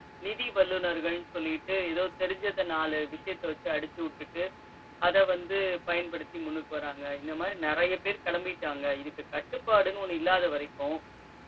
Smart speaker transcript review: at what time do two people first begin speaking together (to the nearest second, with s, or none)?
none